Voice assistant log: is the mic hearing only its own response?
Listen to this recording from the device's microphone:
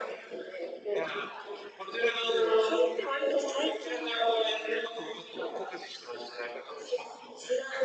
Yes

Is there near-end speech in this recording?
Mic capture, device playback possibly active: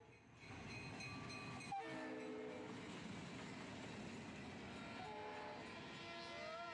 No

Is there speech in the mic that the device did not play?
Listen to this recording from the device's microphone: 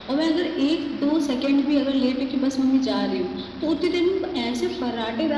No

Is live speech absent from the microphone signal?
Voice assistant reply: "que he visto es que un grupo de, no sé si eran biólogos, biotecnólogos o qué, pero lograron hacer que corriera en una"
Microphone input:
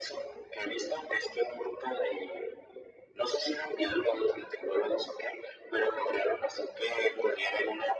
Yes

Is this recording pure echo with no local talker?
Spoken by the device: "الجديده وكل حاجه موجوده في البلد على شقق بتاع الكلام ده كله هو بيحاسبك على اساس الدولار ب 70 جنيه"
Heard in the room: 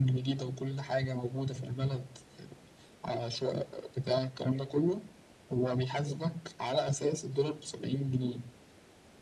Yes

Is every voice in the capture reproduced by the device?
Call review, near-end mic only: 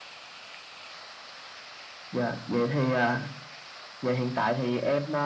Yes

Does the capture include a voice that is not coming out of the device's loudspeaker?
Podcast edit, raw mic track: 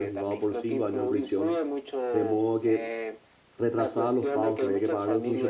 Yes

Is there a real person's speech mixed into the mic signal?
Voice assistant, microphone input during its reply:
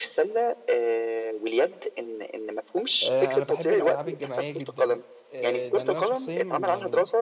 Yes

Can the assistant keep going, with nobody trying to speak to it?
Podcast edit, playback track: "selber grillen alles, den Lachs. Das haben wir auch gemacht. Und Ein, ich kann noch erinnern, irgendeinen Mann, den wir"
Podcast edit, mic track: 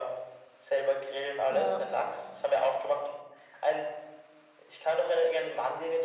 No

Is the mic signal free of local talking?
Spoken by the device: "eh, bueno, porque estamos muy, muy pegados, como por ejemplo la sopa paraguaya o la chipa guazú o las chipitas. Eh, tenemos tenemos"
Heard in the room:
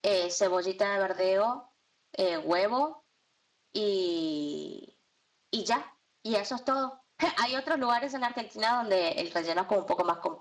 No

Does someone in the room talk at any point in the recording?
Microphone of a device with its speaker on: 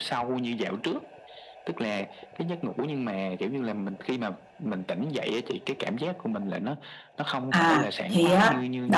Yes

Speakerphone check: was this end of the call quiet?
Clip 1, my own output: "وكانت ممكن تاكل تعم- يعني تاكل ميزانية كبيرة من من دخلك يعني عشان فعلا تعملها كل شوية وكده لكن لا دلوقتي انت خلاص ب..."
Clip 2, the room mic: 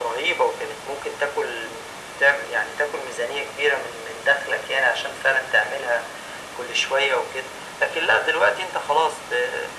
Yes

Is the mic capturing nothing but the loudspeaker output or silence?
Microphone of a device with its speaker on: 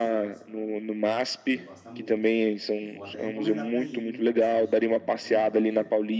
No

